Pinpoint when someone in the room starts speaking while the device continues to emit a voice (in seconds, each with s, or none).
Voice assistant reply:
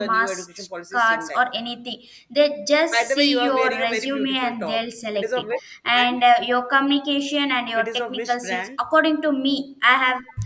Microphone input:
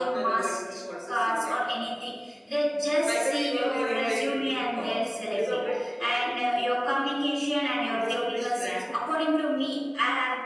none